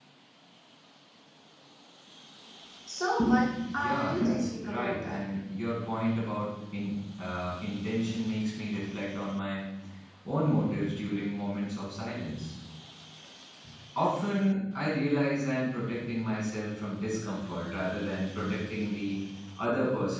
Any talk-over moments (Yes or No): Yes